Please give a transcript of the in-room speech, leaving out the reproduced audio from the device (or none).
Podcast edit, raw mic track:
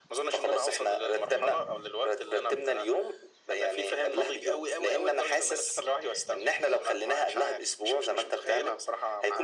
none